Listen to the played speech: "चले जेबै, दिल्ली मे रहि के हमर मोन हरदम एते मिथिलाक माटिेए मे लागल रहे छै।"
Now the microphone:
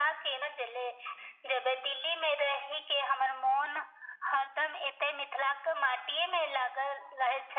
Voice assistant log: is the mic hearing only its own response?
Yes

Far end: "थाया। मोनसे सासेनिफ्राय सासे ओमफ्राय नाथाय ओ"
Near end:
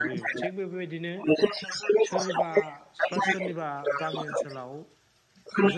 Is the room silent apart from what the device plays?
No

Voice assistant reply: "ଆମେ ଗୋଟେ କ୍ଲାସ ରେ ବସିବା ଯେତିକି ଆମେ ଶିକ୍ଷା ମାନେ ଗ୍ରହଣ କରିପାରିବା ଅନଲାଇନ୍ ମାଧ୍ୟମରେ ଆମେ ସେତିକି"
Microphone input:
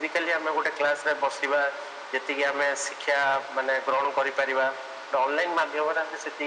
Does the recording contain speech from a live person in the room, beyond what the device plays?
No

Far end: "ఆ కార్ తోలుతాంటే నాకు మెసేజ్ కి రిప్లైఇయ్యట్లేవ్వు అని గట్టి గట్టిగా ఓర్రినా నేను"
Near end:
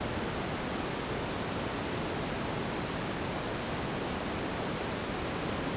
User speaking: No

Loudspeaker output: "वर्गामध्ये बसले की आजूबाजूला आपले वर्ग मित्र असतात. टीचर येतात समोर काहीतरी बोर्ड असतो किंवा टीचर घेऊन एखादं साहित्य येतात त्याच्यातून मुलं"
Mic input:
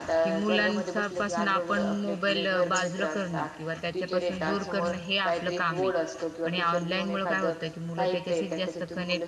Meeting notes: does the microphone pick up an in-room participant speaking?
Yes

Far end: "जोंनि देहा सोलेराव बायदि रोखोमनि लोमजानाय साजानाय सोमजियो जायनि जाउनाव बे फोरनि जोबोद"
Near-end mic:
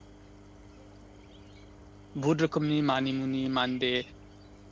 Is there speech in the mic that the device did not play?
Yes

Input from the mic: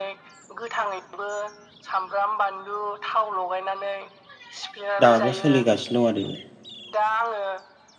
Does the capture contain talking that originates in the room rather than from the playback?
Yes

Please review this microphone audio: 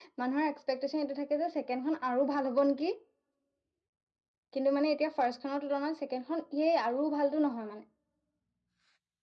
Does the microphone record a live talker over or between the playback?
Yes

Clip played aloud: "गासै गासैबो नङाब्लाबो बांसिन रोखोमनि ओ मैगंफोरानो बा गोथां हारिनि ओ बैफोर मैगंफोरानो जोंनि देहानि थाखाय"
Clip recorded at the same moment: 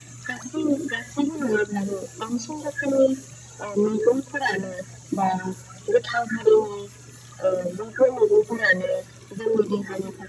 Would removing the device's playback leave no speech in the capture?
Yes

